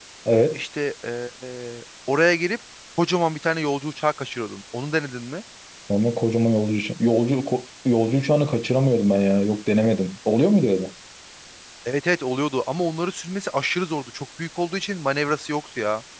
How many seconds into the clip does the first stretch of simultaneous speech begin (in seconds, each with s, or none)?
none